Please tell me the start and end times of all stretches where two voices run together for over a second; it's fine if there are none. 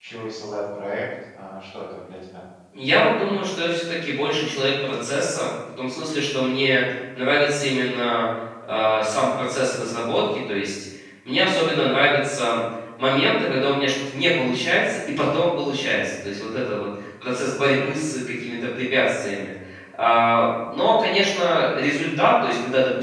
none

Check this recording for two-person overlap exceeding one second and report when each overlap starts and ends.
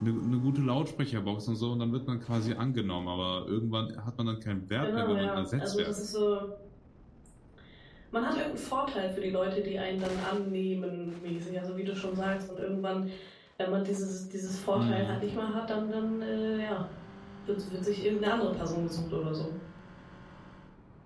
4.8-6.0

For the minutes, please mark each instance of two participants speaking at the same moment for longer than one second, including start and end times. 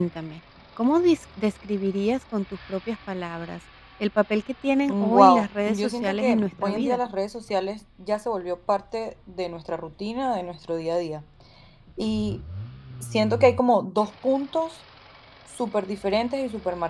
4.9-7.0

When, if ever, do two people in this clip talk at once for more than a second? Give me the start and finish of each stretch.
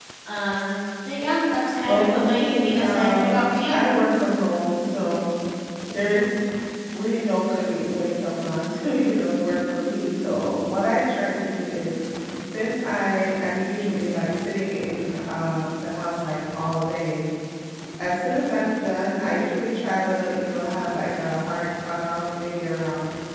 1.9-3.8

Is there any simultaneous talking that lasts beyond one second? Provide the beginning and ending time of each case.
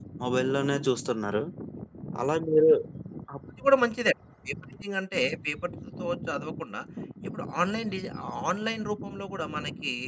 none

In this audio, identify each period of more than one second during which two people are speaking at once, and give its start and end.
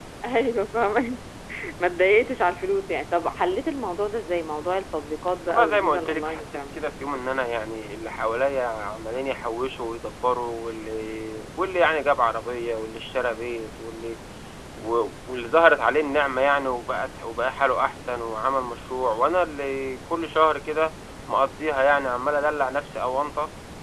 5.5-6.8

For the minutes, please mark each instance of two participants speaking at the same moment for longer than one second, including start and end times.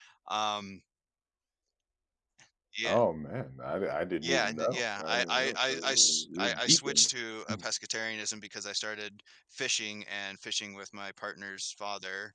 4.2-7.1

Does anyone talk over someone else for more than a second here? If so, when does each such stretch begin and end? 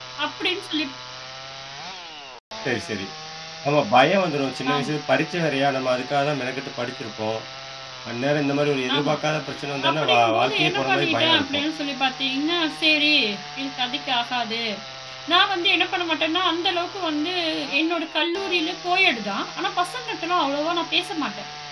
9.9-11.6

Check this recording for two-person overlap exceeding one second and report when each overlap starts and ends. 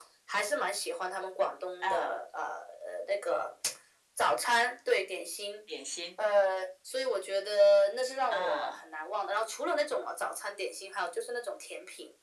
none

